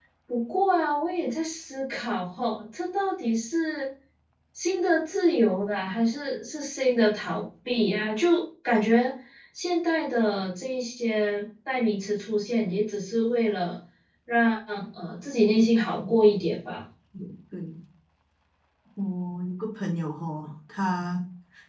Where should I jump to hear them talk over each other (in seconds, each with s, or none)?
none